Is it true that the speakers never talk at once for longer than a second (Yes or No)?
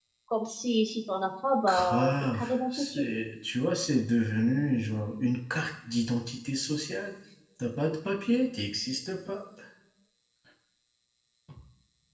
No